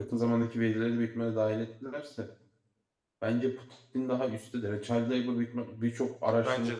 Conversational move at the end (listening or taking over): listening